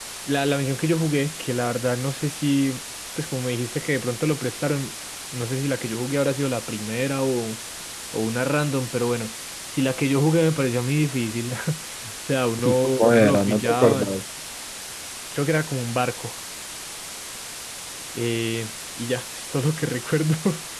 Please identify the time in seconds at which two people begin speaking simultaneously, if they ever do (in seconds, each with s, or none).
12.6 s